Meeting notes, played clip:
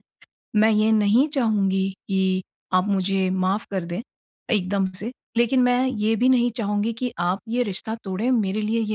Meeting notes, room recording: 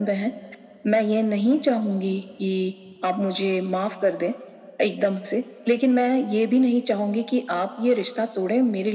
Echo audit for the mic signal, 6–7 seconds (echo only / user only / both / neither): echo only